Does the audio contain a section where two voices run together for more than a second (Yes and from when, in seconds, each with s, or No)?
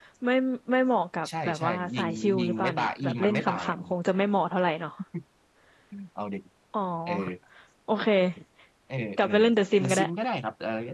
Yes, from 1.4 s